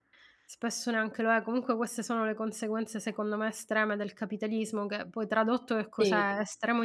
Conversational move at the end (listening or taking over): listening